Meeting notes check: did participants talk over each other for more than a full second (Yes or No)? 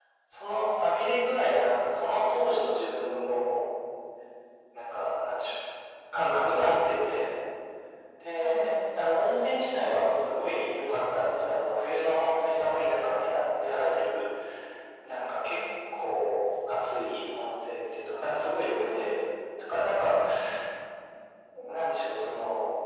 No